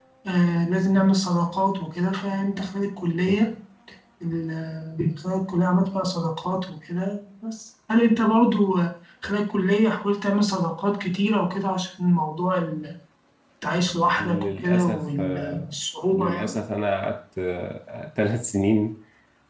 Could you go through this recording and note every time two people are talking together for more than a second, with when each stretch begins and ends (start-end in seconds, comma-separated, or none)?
14.2-15.7